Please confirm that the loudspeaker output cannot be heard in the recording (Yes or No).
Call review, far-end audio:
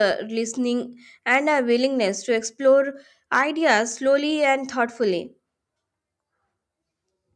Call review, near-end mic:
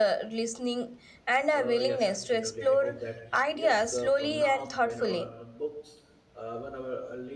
No